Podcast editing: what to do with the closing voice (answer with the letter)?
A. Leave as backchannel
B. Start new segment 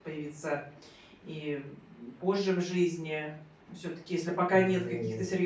A